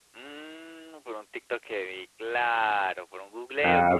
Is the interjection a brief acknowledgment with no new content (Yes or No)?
No